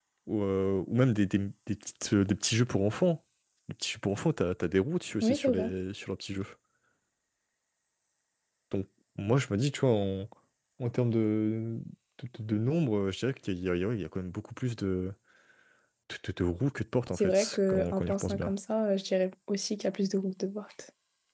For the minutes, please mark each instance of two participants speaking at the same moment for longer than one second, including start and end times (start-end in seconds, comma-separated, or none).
17.1-18.5